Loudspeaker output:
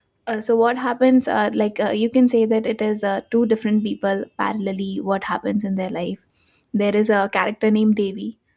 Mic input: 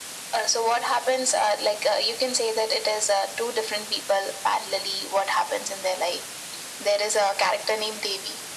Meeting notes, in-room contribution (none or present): none